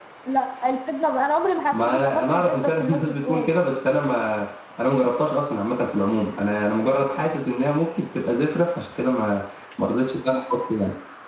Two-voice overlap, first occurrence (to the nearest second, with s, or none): 2 s